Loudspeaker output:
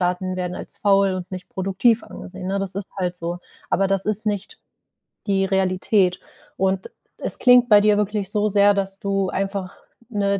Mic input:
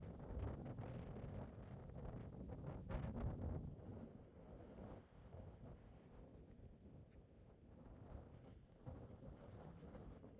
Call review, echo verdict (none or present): none